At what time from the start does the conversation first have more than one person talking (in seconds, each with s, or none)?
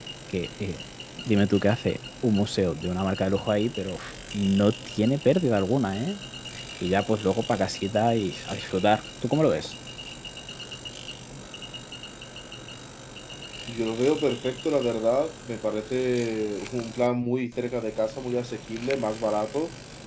none